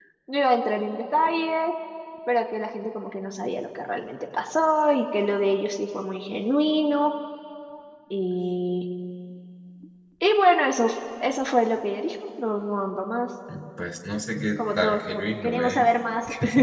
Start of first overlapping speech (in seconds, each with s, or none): 14.6 s